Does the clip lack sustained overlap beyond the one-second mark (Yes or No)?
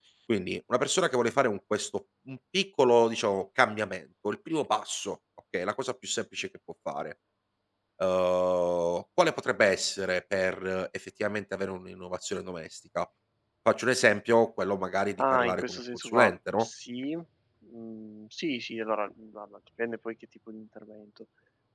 No